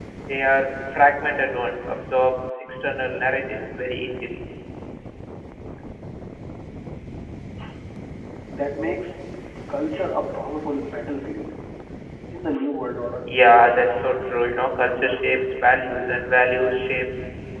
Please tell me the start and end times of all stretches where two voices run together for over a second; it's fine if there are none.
none

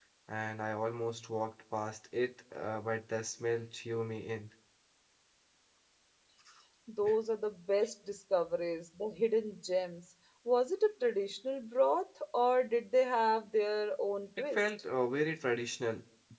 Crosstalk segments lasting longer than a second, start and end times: none

